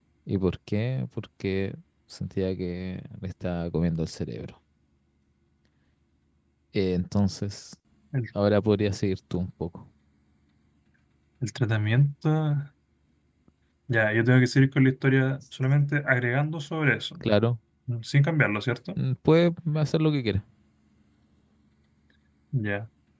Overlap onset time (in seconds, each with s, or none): none